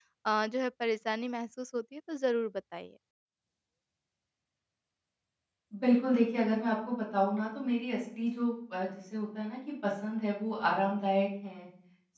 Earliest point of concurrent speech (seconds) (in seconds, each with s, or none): none